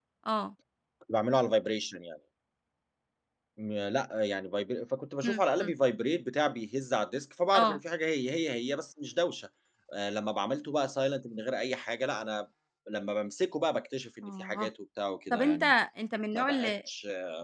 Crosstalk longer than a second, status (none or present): none